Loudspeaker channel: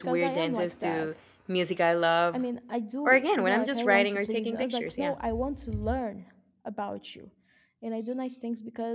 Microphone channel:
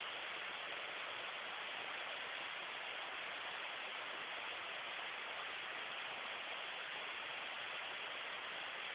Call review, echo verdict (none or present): none